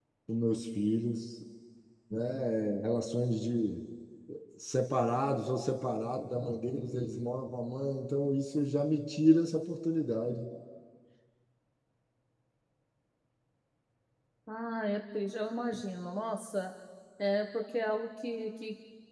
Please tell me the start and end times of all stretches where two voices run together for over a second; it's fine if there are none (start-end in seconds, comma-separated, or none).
none